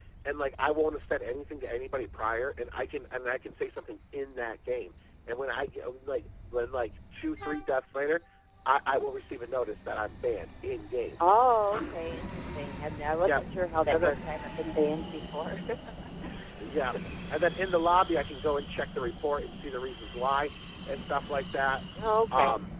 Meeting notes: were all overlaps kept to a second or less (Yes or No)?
Yes